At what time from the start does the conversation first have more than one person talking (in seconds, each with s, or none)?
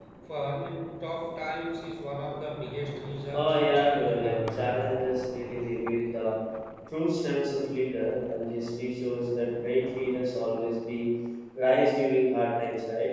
3.3 s